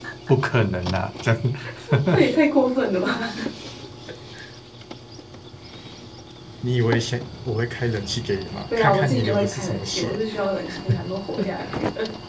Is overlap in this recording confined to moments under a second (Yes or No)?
No